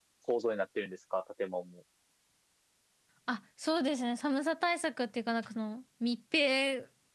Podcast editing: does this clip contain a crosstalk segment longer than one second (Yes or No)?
No